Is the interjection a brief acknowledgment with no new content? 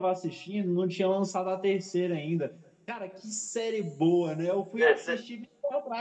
Yes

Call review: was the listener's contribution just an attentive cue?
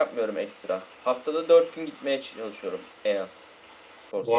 No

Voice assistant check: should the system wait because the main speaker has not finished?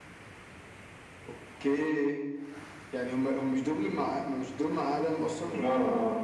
No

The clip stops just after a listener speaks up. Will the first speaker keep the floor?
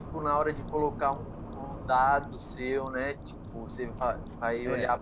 Yes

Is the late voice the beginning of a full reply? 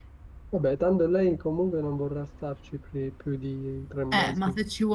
Yes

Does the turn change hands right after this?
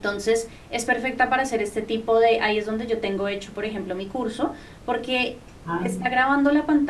No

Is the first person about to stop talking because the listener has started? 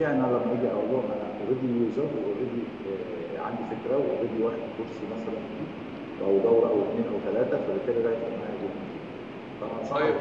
Yes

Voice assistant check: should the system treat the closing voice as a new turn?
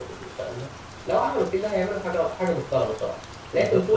Yes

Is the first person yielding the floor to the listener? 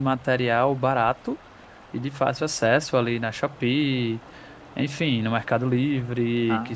No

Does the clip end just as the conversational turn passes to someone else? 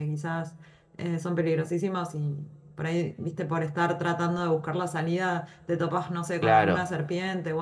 No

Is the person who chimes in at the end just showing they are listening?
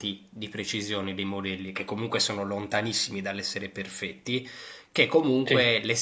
Yes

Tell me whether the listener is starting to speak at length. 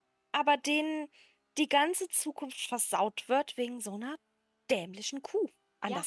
Yes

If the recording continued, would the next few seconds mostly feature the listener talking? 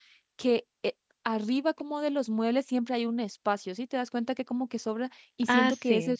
No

